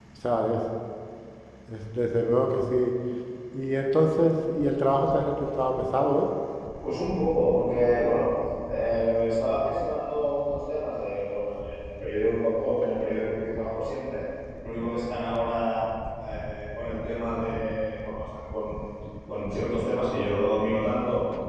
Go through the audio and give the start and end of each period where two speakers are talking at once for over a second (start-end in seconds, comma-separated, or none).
none